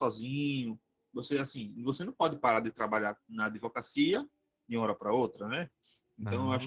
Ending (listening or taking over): listening